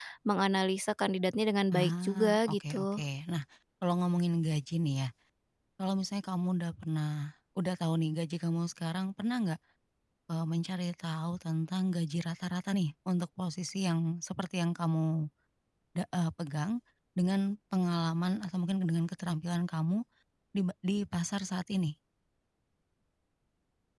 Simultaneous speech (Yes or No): Yes